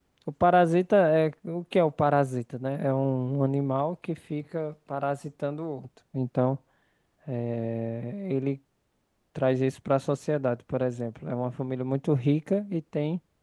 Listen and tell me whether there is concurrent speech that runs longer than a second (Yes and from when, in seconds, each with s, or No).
No